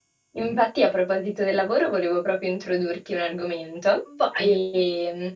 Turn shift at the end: No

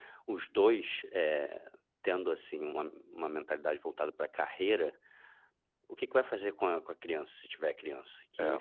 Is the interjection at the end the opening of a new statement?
No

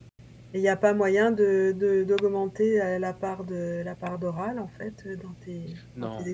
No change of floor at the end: No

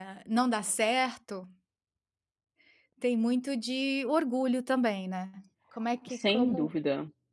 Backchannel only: No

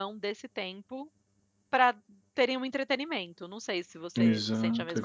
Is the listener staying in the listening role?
No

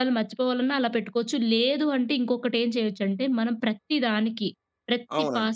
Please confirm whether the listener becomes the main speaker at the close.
No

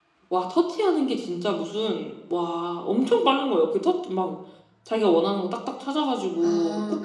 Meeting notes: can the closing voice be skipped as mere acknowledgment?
No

